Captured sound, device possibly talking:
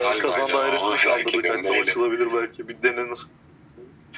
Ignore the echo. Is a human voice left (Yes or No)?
No